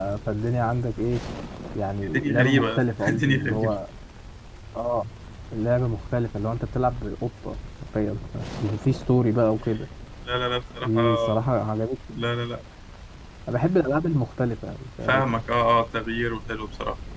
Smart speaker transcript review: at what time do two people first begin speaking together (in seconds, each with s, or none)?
2.2 s